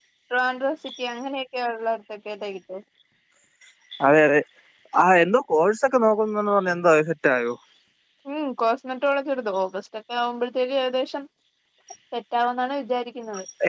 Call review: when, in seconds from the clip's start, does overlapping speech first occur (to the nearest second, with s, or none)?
none